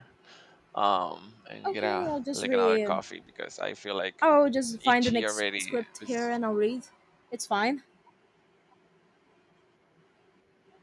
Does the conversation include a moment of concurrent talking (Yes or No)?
Yes